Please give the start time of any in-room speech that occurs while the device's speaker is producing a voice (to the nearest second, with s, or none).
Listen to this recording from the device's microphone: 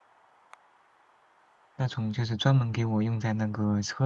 2 s